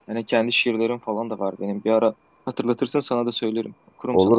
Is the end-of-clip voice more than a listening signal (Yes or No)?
Yes